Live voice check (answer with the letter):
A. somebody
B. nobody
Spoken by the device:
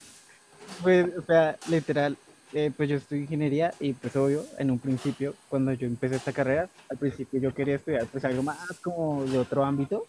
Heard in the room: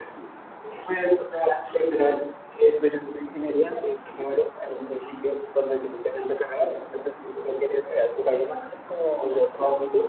B